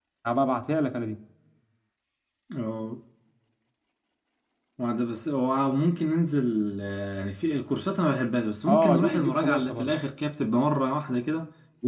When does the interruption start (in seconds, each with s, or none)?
8.7 s